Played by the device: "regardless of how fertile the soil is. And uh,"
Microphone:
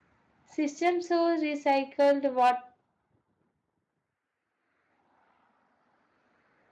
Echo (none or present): none